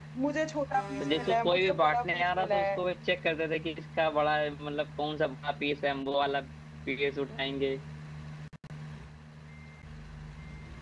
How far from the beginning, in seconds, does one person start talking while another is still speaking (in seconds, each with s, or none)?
1.0 s